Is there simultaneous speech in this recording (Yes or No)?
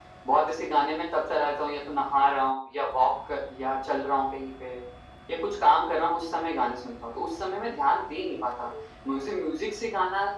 No